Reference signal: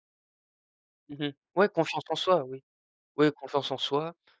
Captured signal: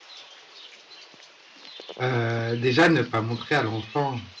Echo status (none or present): none